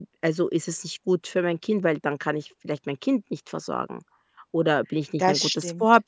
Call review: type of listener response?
listening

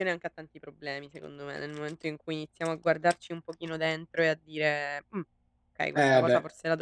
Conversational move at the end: listening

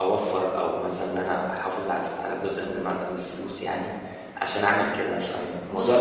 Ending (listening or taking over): taking over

